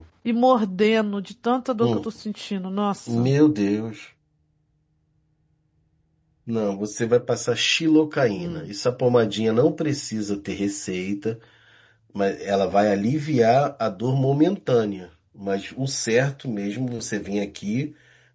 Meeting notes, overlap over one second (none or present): none